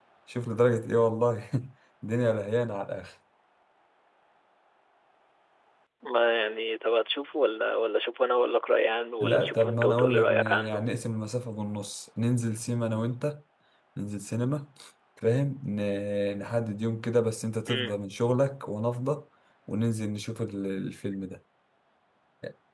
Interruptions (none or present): present